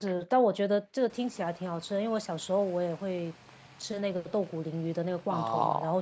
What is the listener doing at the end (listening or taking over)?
listening